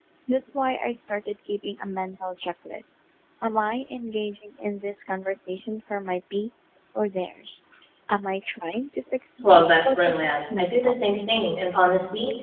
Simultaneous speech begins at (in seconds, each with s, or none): 9.4 s